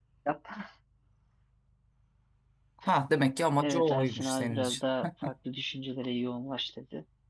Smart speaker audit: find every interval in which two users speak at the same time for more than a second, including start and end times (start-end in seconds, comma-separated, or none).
3.6-4.8